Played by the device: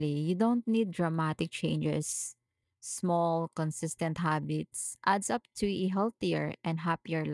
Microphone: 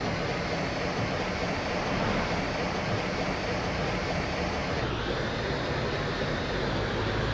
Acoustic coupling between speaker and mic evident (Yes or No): No